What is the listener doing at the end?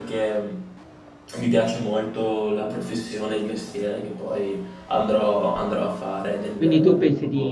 taking over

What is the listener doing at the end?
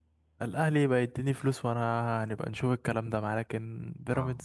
taking over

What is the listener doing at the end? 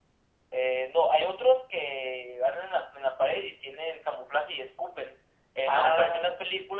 listening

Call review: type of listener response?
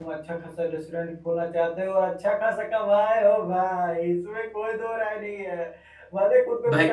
listening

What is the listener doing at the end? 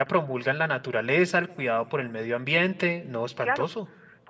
taking over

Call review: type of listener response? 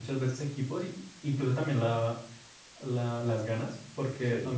listening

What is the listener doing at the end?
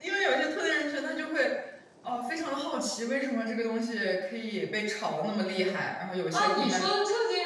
taking over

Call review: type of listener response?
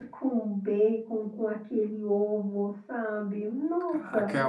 taking over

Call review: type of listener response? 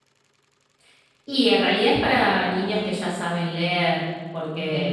listening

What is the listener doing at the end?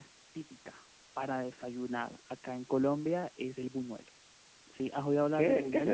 taking over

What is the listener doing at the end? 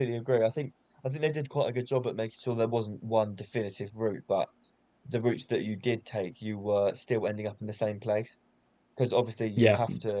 listening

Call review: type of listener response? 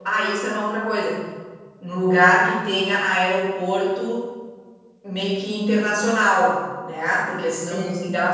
listening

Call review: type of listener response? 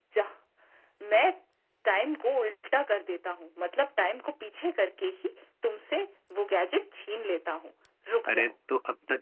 taking over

